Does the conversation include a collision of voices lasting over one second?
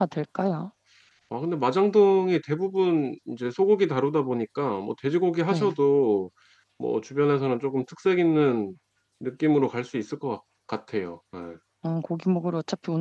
No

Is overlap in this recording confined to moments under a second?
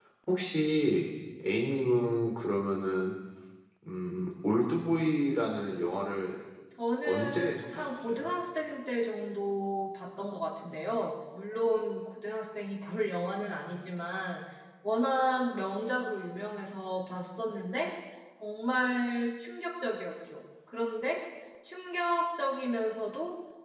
No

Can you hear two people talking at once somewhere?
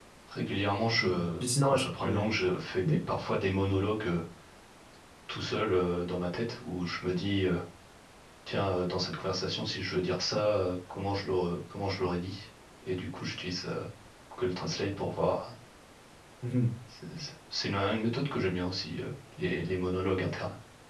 Yes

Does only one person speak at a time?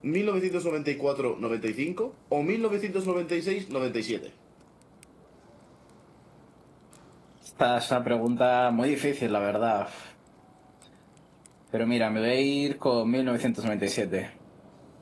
Yes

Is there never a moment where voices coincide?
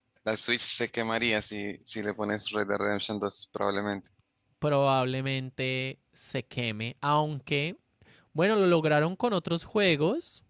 Yes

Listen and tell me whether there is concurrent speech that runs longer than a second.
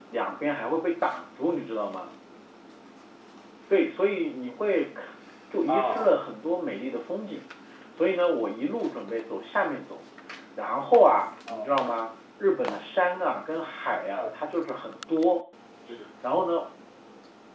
No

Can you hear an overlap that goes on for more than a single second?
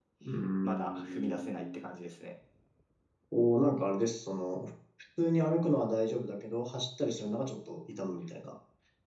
Yes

